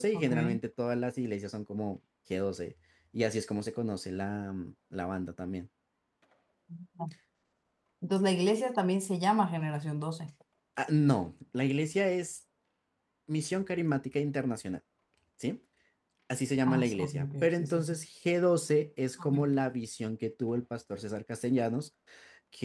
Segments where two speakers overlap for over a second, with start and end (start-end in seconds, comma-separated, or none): 16.7-18.0